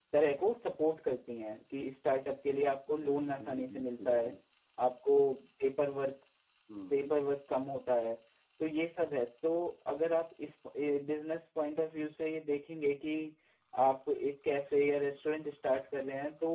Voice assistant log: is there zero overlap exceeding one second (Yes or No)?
No